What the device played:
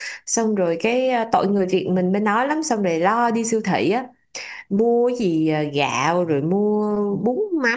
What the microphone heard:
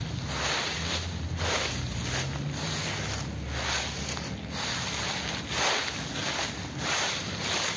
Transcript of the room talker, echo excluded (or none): none